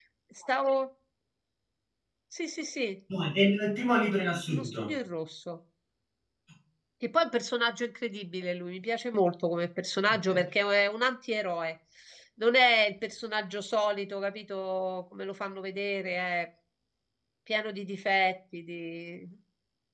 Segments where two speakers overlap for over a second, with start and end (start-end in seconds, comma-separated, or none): none